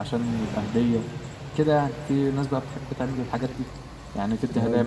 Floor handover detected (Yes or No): Yes